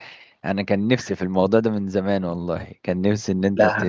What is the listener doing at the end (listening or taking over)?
listening